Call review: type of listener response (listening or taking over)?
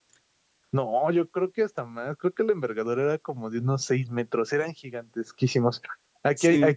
listening